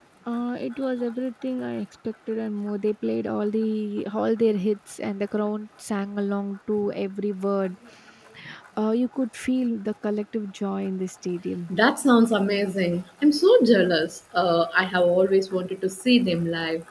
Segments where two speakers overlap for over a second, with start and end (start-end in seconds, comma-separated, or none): none